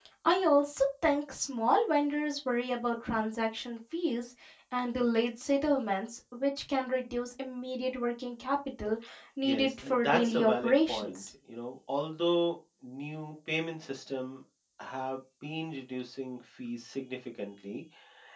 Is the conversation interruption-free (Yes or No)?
No